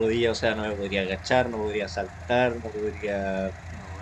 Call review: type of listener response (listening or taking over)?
listening